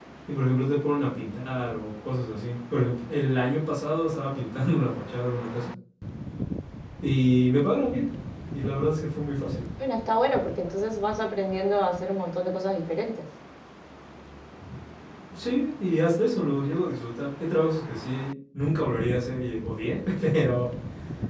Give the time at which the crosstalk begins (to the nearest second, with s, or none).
none